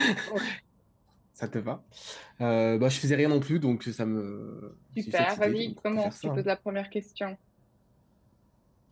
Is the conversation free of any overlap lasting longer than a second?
No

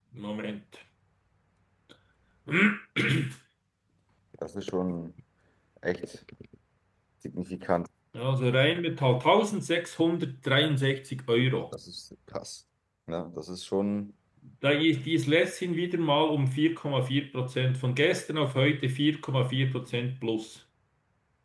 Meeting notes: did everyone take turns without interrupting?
Yes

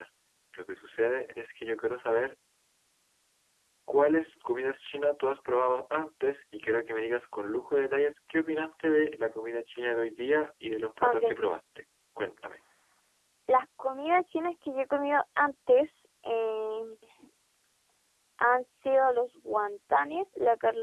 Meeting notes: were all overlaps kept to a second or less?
Yes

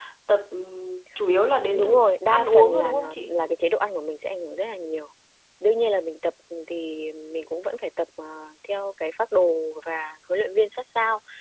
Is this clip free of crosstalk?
No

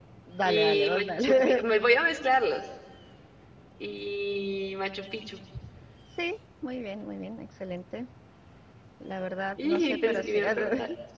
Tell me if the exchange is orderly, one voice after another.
No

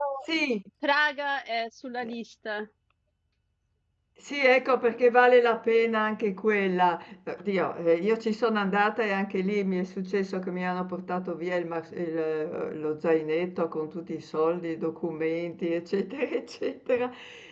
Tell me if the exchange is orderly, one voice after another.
Yes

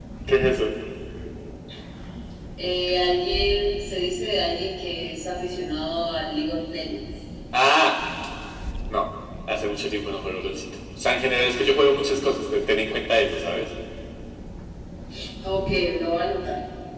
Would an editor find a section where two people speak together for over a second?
No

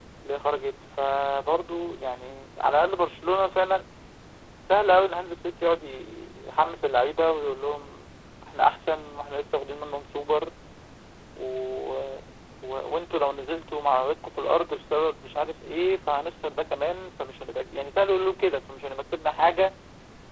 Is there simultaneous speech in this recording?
No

